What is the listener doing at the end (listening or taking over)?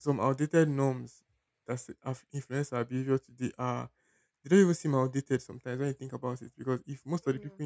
listening